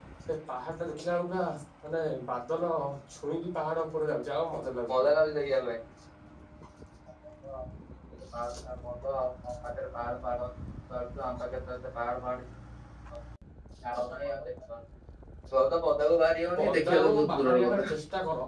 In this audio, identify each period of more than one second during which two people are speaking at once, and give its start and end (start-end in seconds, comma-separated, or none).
16.6-17.9